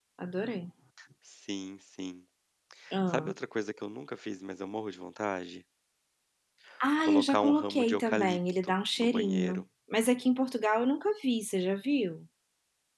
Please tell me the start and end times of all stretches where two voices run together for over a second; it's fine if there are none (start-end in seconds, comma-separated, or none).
7.0-9.6